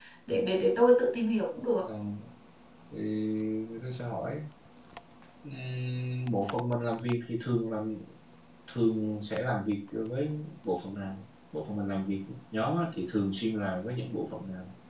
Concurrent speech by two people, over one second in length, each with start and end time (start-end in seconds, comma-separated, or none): none